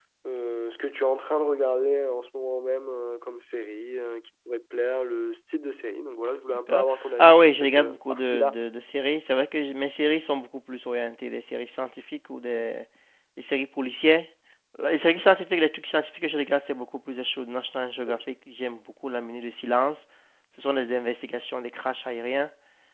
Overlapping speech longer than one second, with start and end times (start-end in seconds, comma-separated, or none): 6.7-8.6